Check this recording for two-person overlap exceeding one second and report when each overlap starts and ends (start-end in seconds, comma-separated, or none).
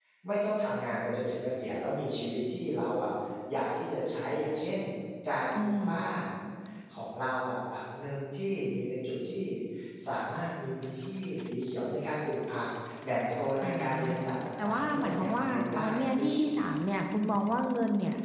14.6-16.3